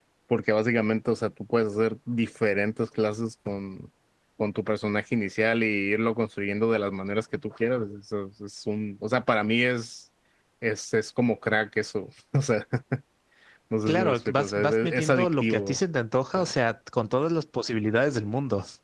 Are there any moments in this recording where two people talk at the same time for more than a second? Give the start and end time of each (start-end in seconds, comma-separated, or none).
13.9-15.7